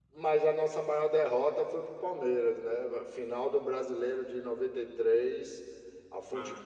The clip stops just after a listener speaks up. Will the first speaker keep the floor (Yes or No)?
Yes